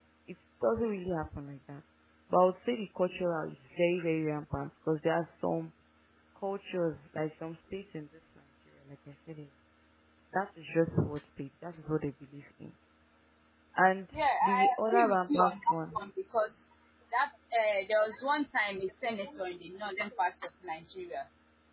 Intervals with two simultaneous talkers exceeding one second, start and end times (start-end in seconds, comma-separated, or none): 14.1-15.9